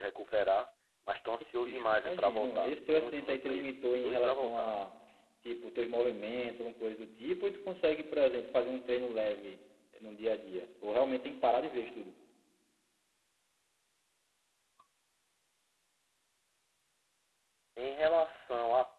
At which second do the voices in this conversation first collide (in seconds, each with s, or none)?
1.6 s